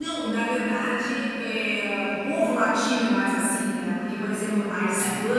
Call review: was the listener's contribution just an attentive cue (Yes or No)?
Yes